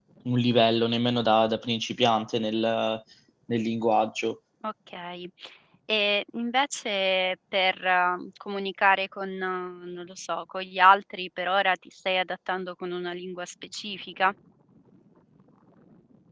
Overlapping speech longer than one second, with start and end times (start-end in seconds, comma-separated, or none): none